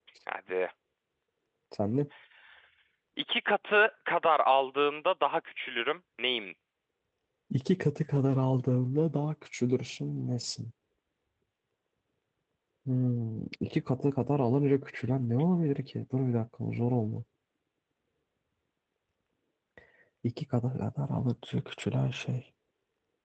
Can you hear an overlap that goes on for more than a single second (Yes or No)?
No